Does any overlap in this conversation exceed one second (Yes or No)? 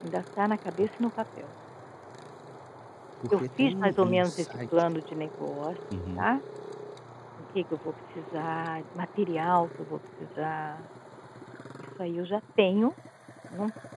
Yes